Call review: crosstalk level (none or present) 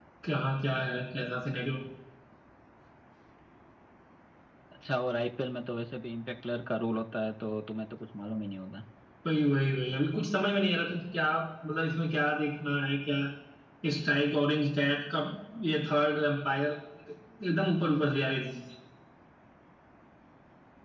none